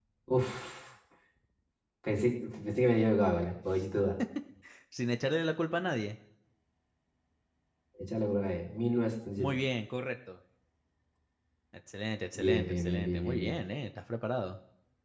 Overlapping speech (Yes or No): Yes